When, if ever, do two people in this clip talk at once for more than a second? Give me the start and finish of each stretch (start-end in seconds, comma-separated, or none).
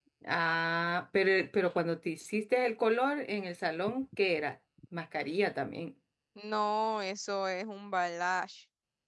none